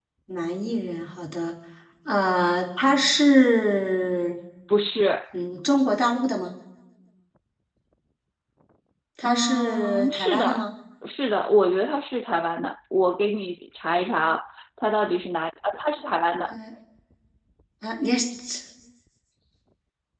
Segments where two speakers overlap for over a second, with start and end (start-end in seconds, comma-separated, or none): 9.2-10.6